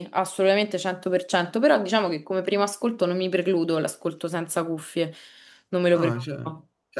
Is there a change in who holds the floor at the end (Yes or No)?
Yes